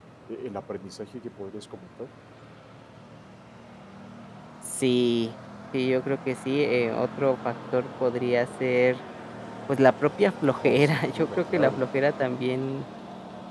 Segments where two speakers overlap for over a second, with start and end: 10.5-11.8

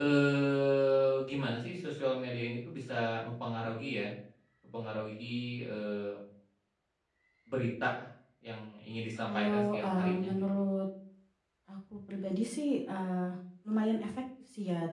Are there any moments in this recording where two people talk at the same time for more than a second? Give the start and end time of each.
9.3-10.6

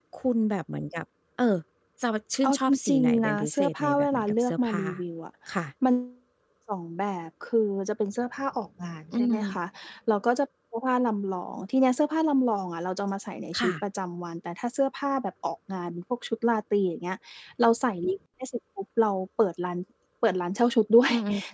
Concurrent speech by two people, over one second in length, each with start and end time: 2.4-4.8

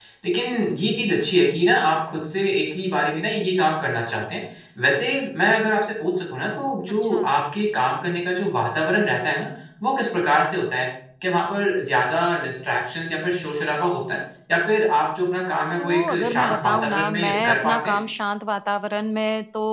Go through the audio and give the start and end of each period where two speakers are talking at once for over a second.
15.8-17.9

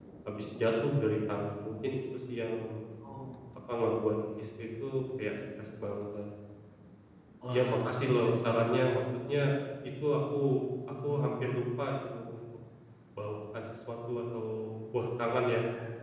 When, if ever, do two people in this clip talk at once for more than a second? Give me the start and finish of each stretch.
7.5-8.8

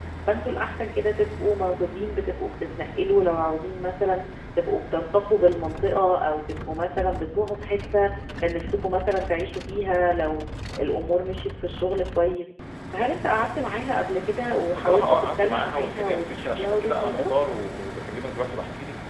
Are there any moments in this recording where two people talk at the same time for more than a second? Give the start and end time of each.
14.7-17.3

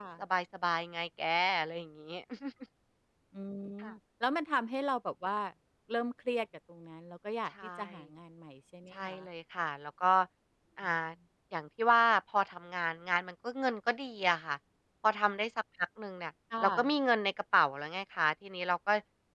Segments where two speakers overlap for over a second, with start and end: none

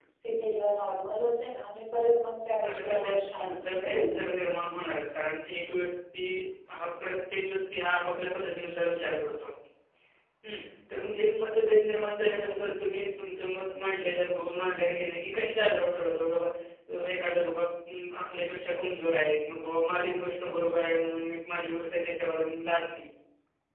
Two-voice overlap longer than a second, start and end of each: 2.7-4.2

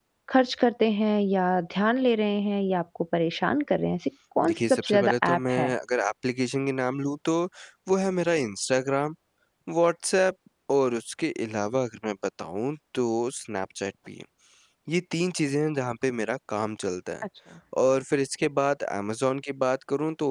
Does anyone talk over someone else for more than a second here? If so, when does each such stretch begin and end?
4.4-5.7

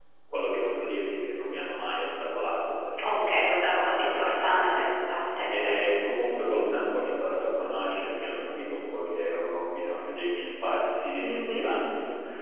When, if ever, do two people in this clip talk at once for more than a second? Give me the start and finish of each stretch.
3.1-4.8

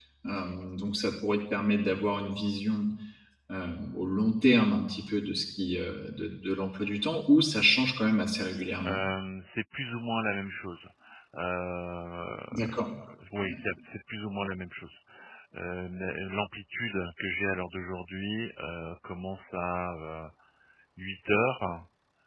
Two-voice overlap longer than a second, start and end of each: none

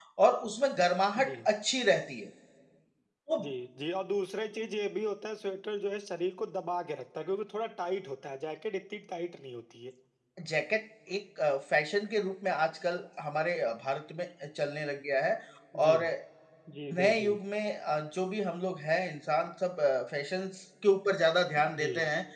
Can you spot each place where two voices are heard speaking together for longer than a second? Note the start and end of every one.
none

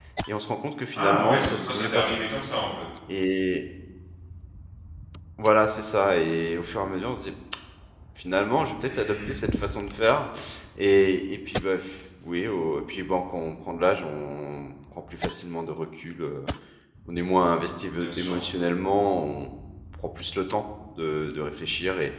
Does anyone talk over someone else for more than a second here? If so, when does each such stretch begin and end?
0.9-2.2

